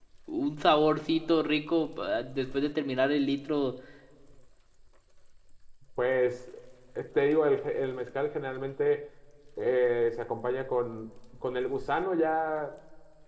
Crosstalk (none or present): none